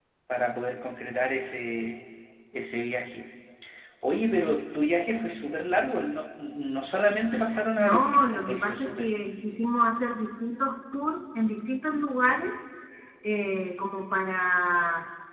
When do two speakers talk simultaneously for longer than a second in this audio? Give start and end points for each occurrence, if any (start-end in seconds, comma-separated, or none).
7.8-9.1